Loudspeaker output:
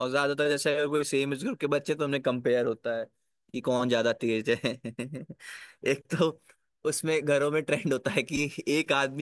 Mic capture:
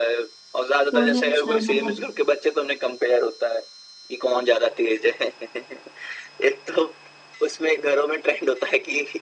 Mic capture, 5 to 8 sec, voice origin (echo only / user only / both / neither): echo only